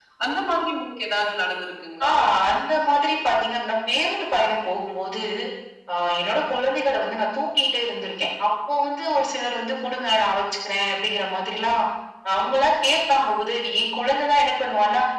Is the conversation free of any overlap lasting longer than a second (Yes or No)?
Yes